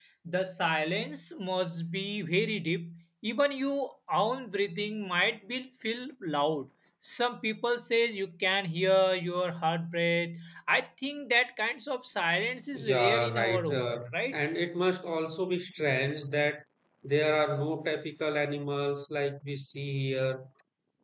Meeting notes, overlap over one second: present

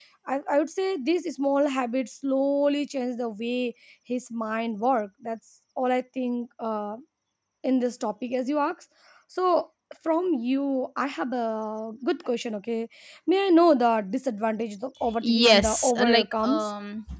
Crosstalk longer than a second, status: present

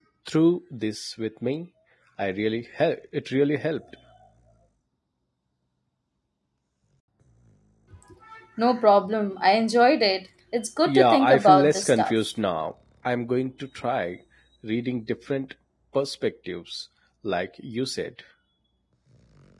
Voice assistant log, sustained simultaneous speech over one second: present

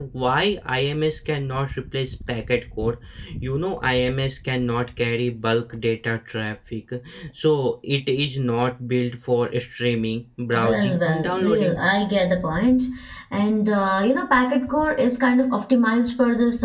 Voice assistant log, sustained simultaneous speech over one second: present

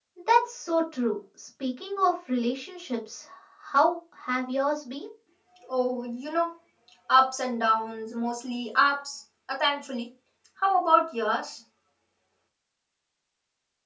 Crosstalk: none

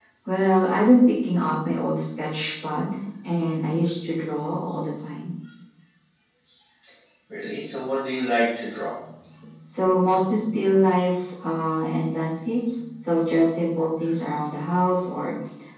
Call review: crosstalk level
none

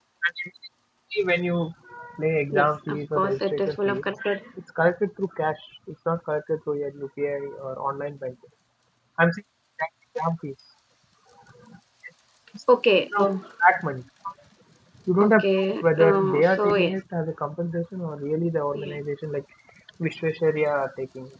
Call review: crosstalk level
present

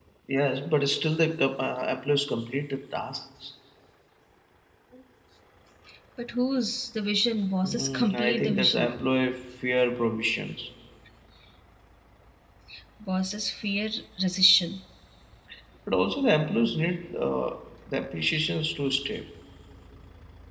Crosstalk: present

